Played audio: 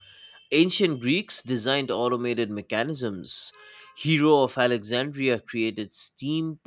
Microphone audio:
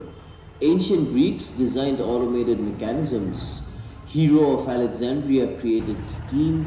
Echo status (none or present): present